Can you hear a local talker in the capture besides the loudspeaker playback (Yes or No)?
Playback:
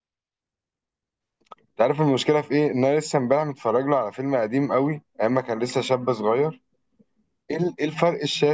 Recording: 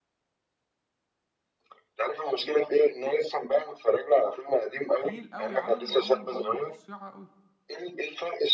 Yes